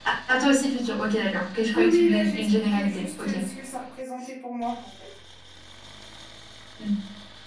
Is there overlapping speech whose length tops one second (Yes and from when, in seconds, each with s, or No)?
Yes, from 1.7 s